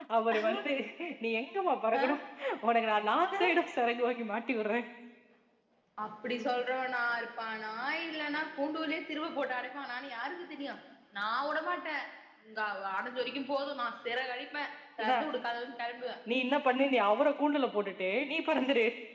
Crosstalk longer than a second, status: none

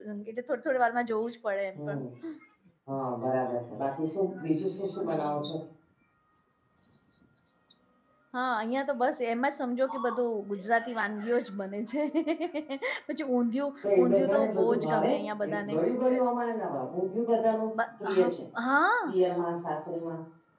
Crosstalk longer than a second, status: present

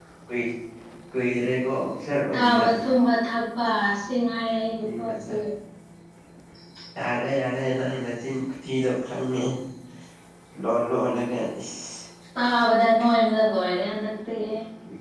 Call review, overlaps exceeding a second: none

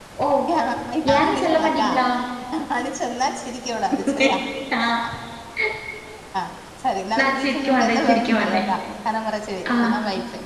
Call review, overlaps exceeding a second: present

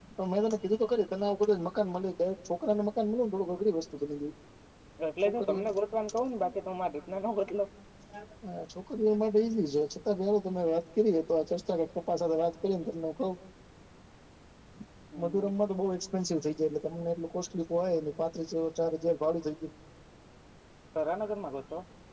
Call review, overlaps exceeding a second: none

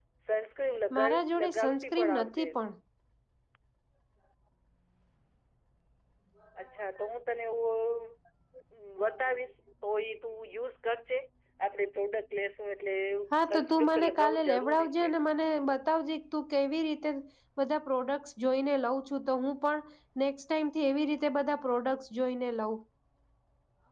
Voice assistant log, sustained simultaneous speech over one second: present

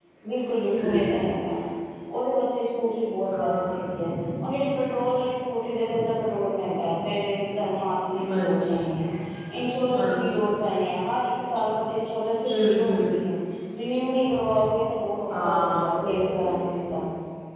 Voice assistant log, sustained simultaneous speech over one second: present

